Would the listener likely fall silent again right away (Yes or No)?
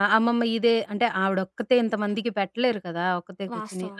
Yes